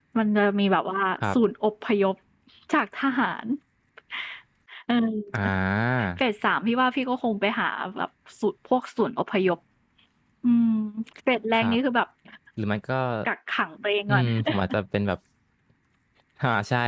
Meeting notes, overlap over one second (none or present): none